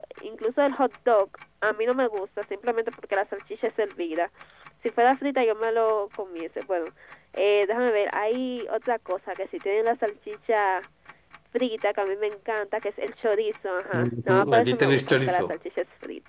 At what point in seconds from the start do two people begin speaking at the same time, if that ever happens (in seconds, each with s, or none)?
13.9 s